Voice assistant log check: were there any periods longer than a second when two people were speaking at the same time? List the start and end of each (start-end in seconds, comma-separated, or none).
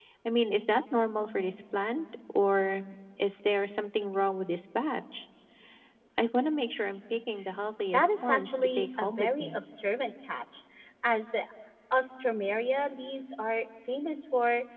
7.9-9.6